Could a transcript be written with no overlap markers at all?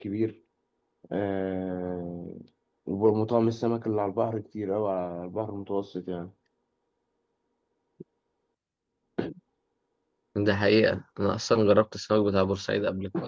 Yes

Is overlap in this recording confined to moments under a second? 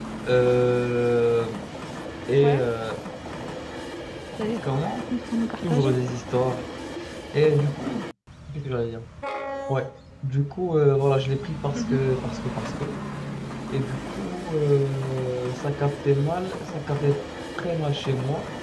Yes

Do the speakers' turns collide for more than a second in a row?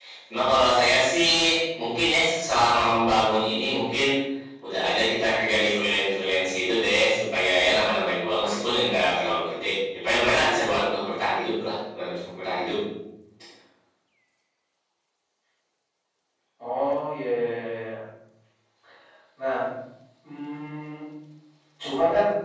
No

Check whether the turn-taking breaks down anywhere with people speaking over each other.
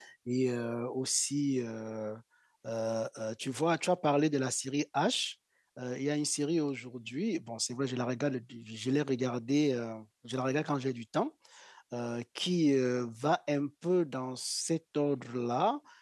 No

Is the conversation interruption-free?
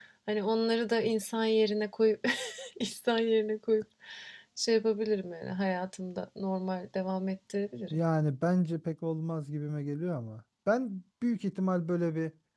Yes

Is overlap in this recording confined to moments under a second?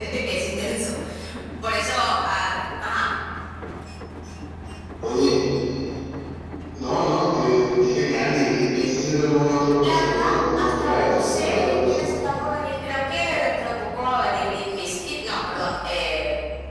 No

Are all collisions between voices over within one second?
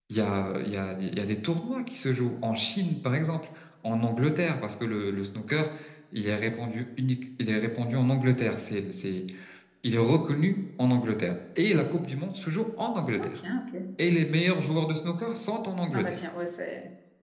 Yes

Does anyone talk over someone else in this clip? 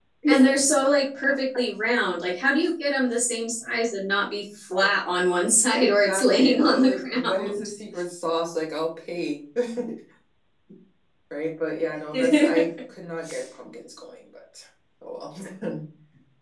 Yes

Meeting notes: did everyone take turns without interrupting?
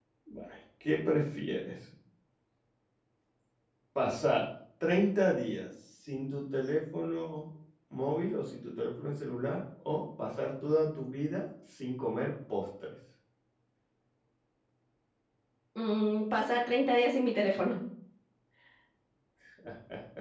Yes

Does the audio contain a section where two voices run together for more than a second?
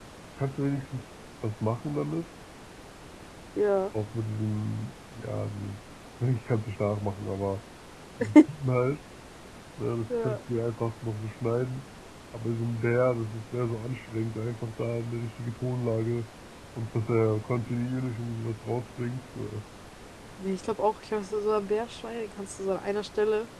No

